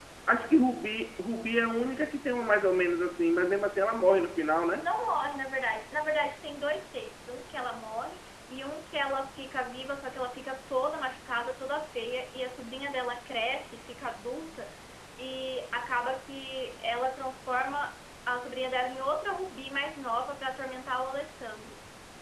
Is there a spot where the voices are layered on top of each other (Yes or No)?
No